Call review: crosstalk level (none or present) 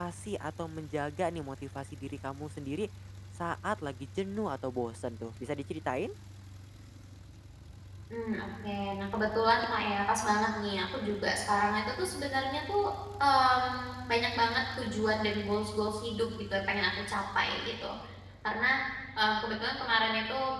none